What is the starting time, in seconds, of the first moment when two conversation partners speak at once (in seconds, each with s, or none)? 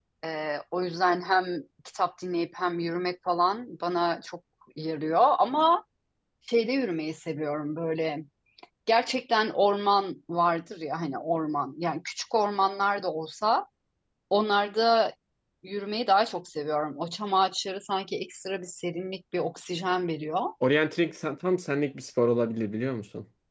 none